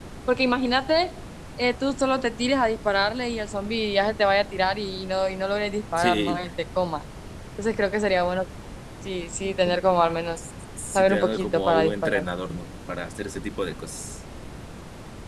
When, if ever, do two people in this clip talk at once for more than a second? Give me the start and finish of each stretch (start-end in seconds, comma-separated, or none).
10.9-12.2